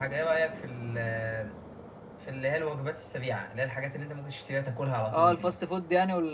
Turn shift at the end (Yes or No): Yes